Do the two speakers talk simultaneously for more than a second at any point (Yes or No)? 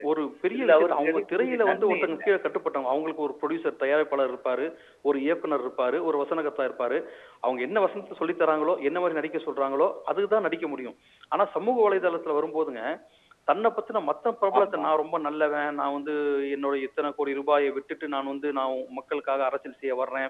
Yes